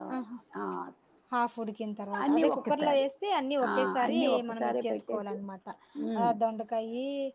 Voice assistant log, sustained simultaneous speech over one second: present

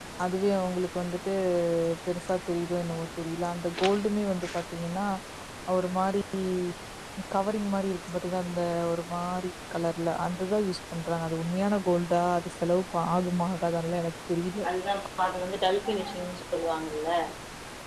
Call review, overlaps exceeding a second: none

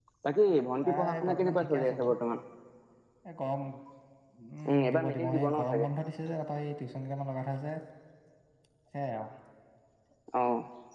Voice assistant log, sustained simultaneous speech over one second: present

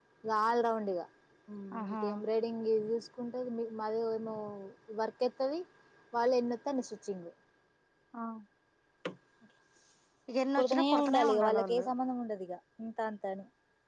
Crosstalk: present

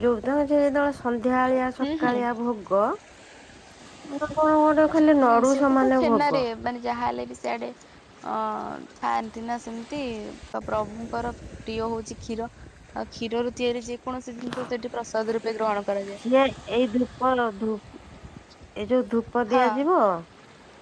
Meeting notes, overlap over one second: present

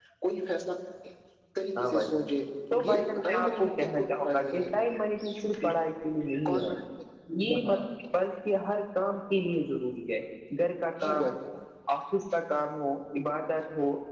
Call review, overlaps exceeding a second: present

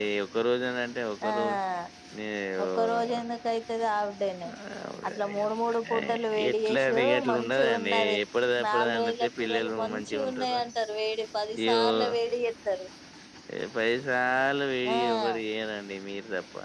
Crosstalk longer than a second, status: present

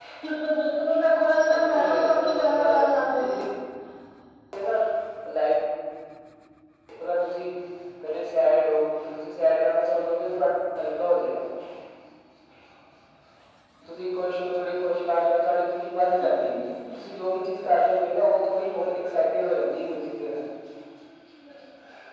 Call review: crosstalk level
present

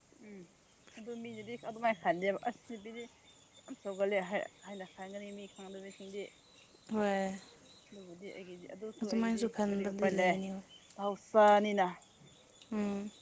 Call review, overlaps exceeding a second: present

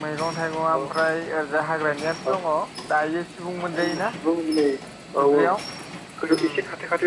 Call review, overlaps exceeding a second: none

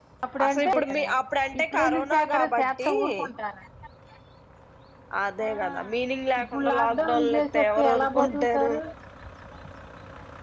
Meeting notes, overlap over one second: present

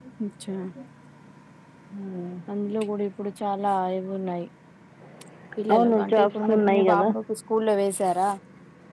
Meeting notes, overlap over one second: present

